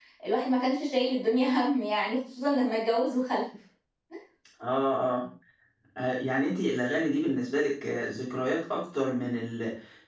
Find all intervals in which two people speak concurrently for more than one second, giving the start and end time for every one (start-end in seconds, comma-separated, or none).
none